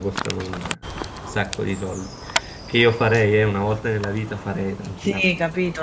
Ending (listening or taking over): taking over